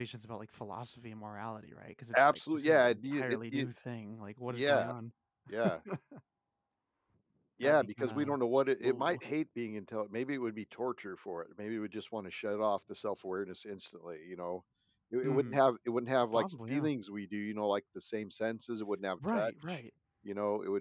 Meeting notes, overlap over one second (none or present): present